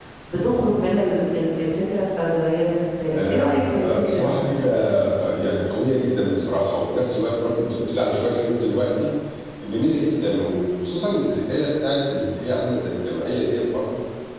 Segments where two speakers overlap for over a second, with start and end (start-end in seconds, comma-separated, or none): 3.1-4.4